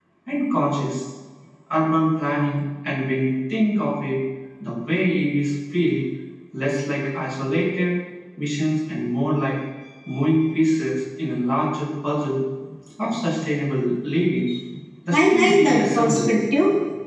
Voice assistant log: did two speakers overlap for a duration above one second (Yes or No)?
Yes